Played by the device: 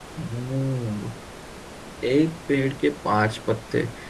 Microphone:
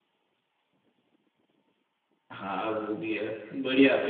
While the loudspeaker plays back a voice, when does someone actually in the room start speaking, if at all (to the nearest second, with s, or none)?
2 s